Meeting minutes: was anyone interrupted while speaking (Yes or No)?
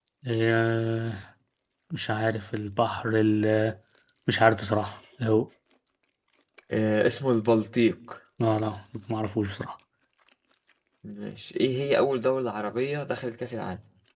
No